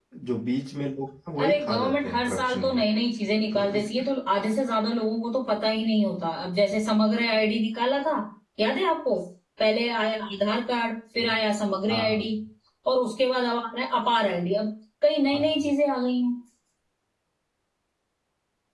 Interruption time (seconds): 1.4 s

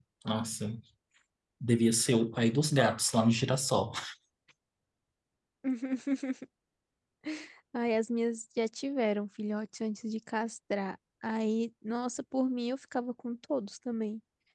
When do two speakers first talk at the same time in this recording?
none

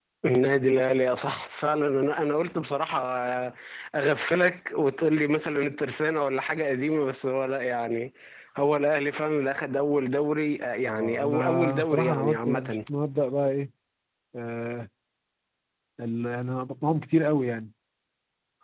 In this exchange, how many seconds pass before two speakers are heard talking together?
10.8 s

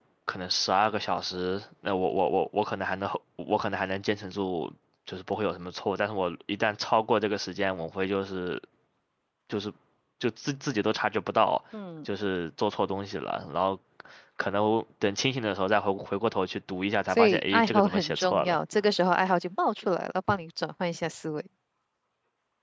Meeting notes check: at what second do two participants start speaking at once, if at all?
17.1 s

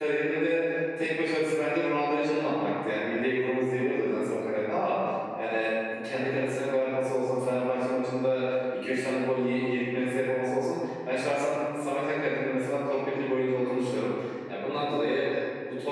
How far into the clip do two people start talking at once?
none

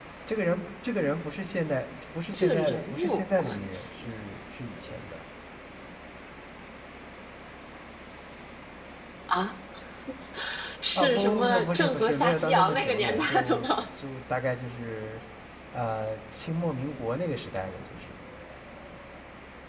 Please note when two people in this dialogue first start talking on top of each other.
2.3 s

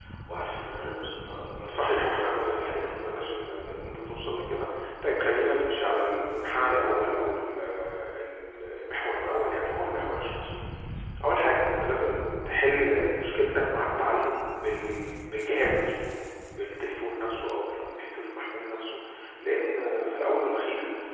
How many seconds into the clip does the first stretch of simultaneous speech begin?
1.7 s

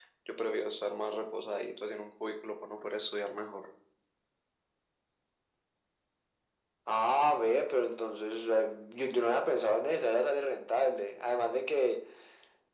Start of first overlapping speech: none

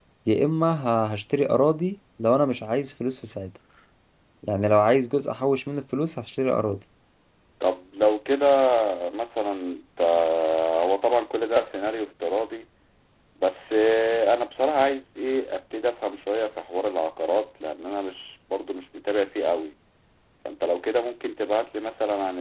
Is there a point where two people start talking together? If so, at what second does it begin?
none

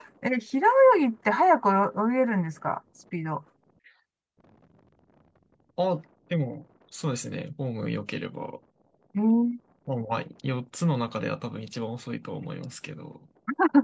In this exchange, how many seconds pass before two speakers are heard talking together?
none

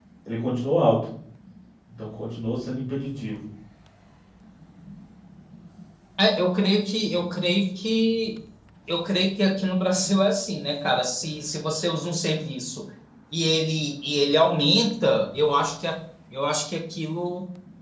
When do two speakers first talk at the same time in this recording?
none

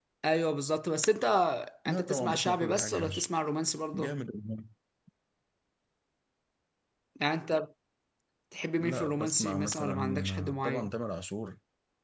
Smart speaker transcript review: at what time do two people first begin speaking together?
1.9 s

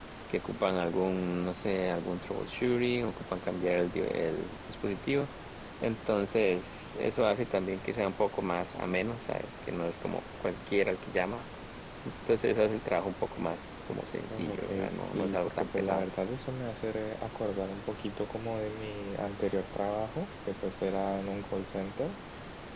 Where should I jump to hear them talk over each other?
14.3 s

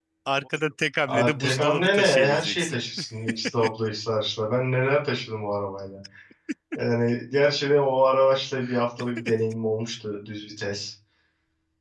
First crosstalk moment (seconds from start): 1.1 s

